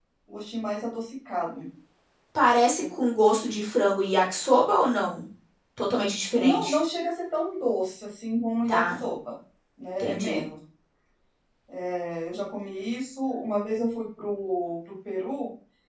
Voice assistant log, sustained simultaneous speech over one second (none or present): none